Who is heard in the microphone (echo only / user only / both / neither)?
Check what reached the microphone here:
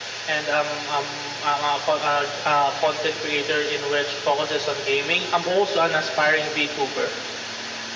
echo only